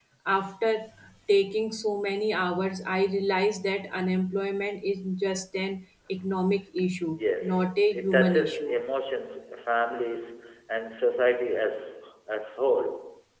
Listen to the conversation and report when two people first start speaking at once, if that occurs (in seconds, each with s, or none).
7.1 s